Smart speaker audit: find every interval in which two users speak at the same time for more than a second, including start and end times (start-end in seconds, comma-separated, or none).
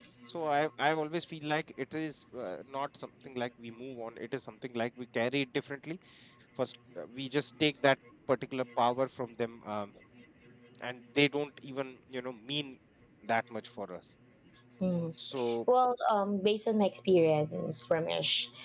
none